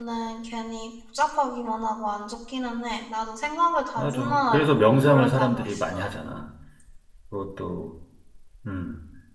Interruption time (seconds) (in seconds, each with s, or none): 4.0 s